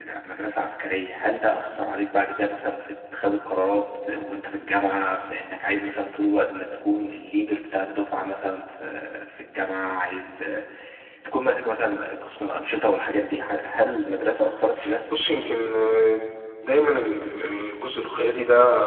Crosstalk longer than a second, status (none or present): none